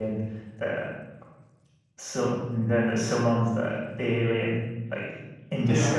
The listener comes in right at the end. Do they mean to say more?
No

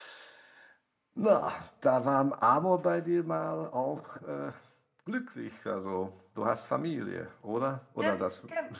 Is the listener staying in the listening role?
No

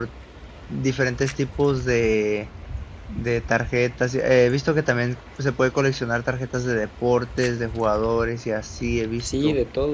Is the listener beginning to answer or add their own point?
Yes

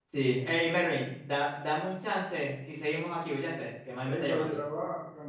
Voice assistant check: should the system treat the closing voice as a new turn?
Yes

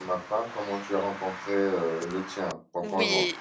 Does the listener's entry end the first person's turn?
Yes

